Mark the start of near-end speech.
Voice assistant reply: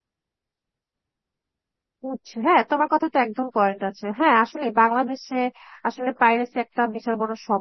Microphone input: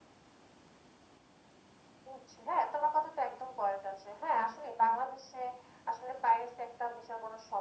none

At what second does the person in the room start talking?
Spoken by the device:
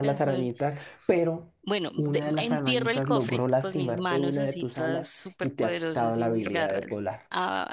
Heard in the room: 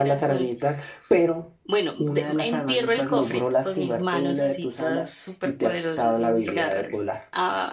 none

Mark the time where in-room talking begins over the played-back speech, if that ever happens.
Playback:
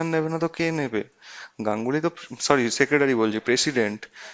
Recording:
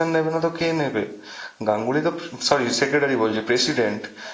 none

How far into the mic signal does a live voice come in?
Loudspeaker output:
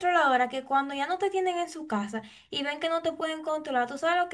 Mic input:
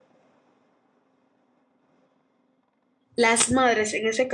3.2 s

